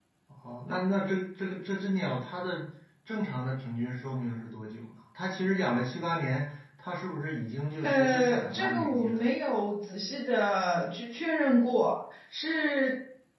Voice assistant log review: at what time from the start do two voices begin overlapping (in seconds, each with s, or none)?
7.8 s